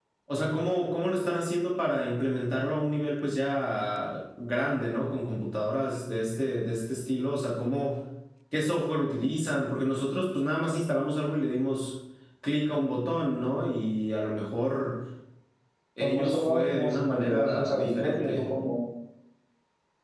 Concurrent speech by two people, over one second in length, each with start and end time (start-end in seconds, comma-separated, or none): 16.0-18.4